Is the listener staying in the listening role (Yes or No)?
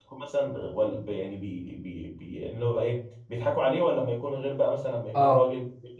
Yes